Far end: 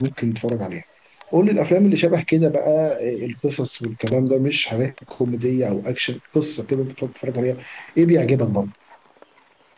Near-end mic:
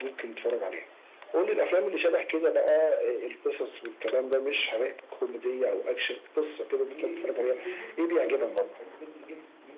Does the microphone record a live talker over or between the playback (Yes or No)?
Yes